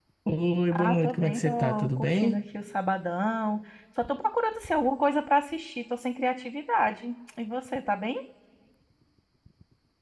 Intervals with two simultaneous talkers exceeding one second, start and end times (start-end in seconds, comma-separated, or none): 0.7-2.4